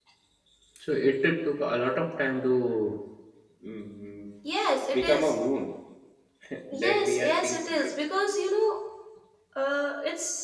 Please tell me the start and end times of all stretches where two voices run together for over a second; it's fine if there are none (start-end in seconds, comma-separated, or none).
6.7-7.9